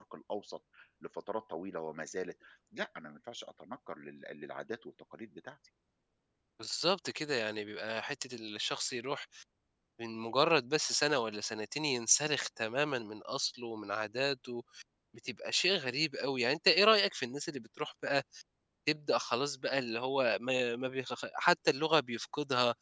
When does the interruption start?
none

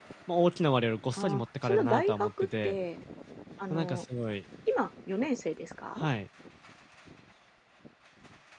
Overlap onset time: 1 s

